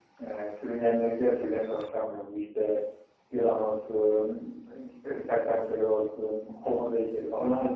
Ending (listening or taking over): taking over